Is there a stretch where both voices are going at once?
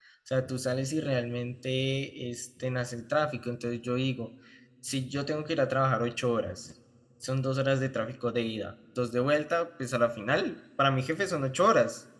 No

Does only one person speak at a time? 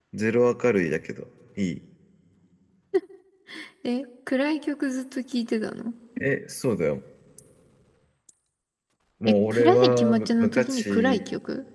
No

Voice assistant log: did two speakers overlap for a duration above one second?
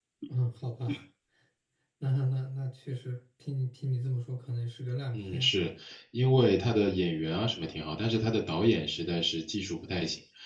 No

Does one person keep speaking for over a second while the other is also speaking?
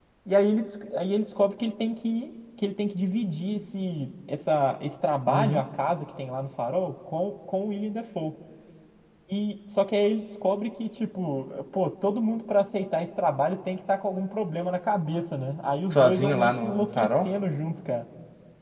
Yes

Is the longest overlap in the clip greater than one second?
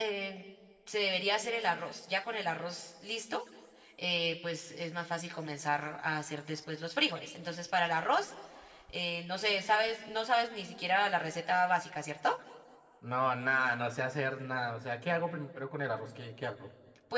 No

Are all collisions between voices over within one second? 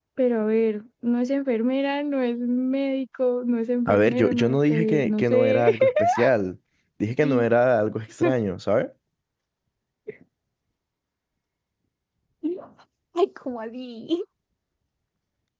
No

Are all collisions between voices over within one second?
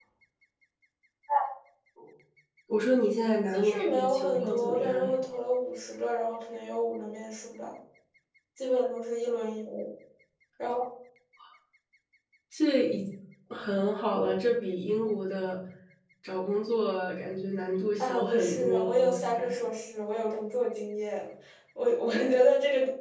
No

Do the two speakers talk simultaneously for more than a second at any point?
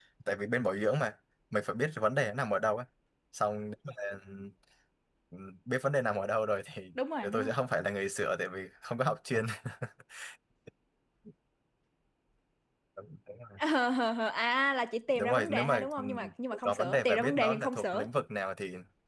Yes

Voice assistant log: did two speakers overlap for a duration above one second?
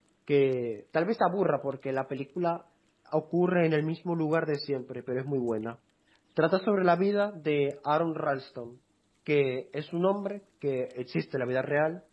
No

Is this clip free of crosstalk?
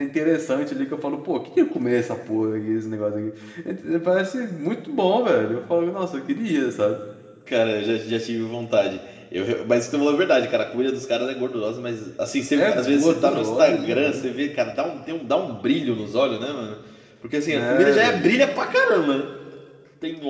No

